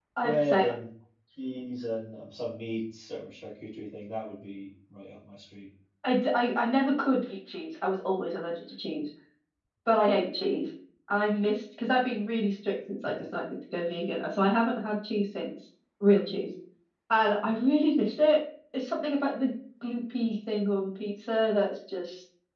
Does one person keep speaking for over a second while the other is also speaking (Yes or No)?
No